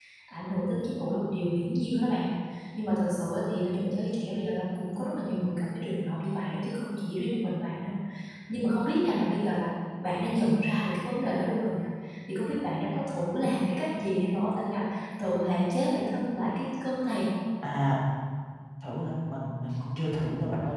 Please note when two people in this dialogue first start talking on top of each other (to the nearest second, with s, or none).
none